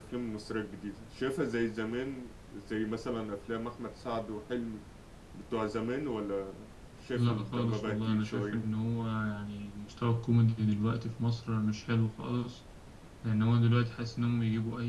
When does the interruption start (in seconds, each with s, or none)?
7.2 s